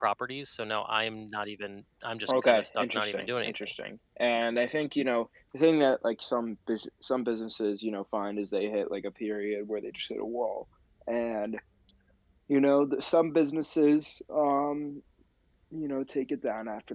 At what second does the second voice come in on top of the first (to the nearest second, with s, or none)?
2 s